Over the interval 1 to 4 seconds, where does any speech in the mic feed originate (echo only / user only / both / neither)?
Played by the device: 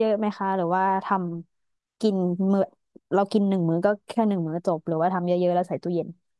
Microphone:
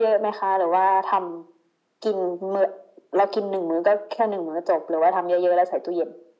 echo only